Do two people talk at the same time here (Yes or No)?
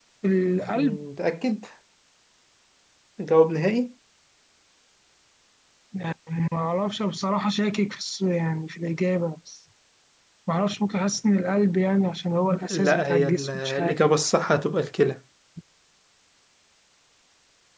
Yes